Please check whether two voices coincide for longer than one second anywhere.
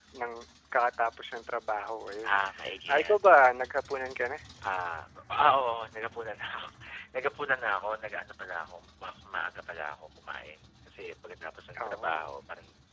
No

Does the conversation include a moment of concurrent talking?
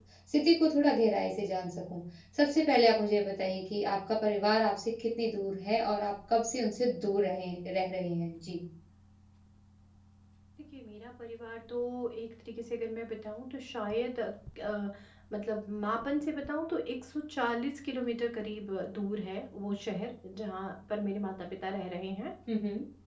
No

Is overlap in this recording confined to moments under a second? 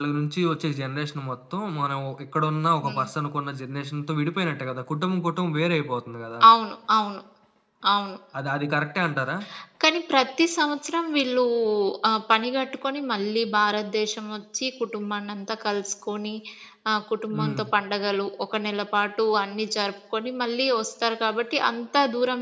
Yes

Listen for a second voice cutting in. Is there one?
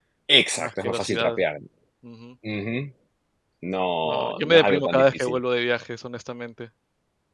Yes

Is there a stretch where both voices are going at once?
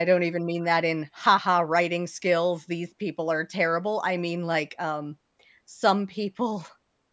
No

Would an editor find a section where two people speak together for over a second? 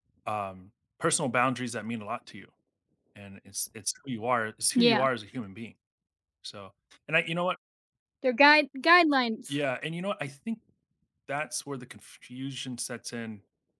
No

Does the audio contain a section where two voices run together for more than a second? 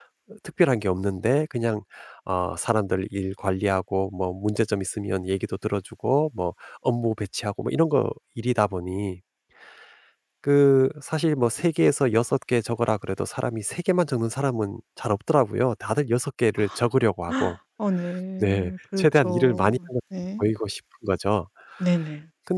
Yes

